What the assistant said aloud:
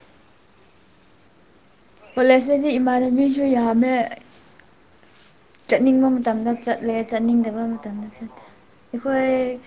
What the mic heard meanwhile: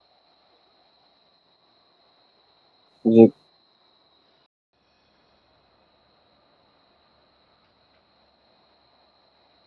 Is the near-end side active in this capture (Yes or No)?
Yes